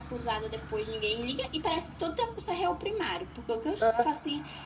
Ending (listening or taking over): listening